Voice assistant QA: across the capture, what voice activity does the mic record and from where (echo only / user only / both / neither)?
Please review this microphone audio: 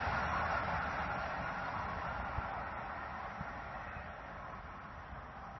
neither